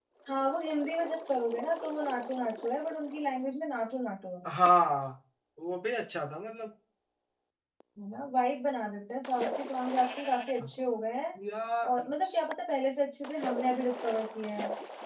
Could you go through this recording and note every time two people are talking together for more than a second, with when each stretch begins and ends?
none

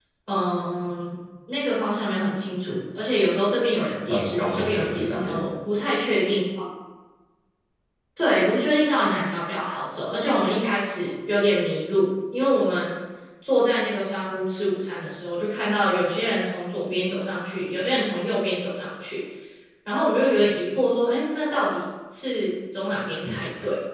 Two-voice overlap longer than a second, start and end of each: 4.1-5.4

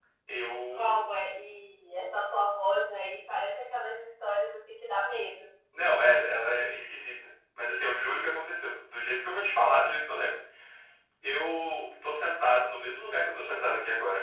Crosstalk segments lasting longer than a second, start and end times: none

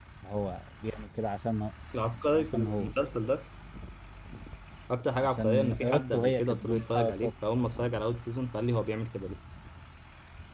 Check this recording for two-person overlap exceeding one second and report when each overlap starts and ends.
5.2-7.3

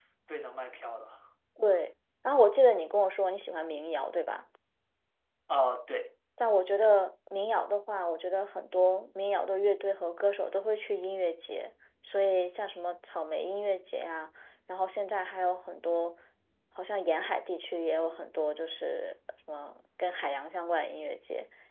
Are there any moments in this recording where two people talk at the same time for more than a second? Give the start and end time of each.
none

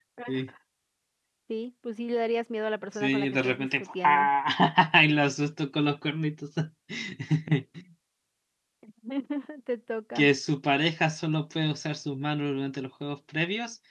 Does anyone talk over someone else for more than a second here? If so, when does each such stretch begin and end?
2.9-4.3

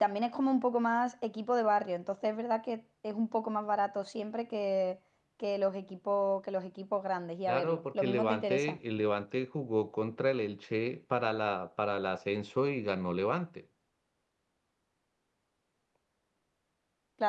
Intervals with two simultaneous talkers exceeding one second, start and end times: 7.5-8.8

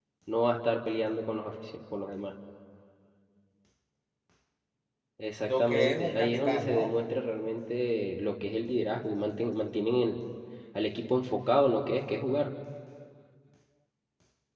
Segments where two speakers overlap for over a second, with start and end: 5.4-6.9

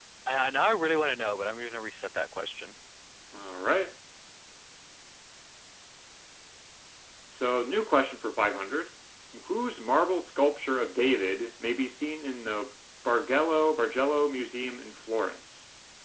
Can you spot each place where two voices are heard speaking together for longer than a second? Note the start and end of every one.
none

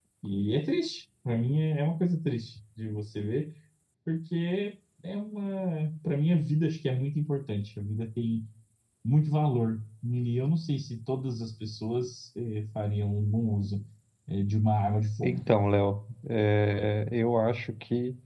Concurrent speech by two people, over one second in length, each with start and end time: none

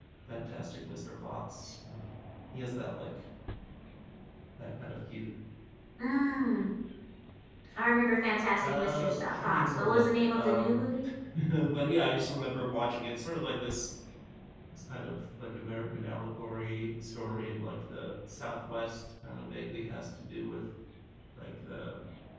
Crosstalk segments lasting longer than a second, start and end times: 8.6-10.9

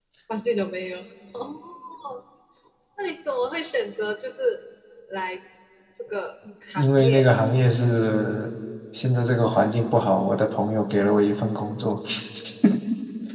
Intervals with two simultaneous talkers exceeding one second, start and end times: none

